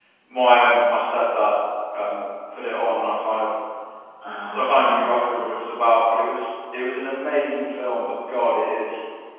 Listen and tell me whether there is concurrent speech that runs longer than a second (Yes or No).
Yes